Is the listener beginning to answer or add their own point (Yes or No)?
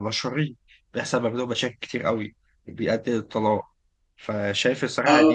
No